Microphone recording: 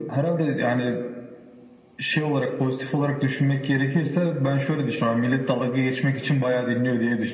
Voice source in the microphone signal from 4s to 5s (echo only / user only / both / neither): echo only